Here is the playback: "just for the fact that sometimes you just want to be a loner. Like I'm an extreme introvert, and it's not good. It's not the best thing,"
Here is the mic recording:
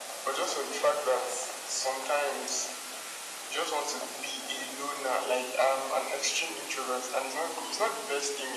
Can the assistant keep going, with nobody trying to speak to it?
Yes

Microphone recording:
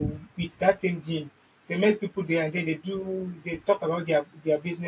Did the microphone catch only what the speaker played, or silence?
No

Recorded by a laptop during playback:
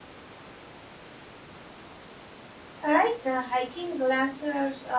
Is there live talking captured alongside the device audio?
Yes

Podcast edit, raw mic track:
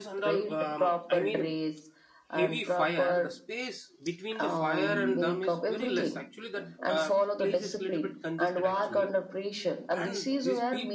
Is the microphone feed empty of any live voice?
No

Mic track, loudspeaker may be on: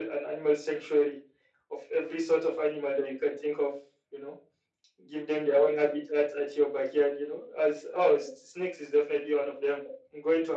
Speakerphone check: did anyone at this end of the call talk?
No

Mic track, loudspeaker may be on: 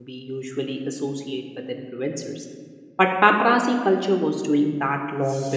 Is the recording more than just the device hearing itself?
Yes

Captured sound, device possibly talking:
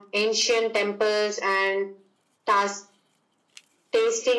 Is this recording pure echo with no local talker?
Yes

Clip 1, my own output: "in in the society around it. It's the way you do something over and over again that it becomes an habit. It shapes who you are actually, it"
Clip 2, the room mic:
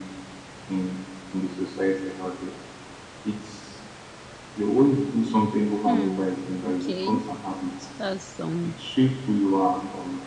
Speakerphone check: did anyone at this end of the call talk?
Yes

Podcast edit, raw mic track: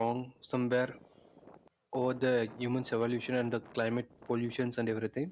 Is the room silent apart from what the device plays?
No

